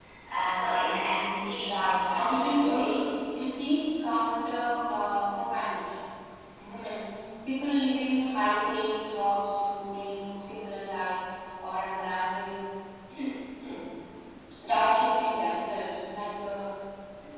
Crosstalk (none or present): present